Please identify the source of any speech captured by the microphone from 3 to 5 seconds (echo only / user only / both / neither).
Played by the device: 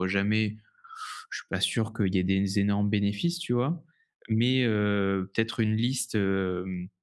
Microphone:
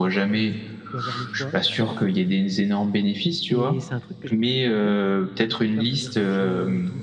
both